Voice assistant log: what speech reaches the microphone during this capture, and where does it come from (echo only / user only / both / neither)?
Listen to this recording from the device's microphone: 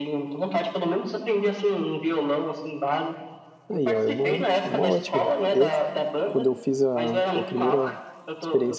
both